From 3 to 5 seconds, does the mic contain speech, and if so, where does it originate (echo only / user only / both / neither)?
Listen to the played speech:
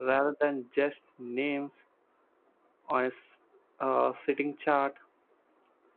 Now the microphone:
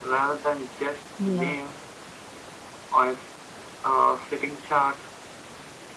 echo only